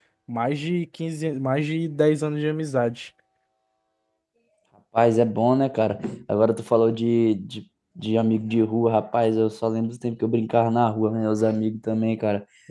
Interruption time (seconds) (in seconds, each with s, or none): none